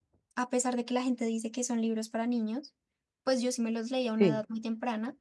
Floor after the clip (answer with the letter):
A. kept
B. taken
A